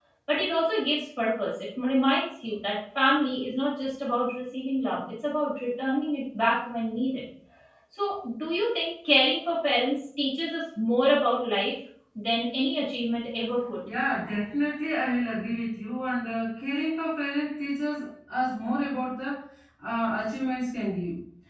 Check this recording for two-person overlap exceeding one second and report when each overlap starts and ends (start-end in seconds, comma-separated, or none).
none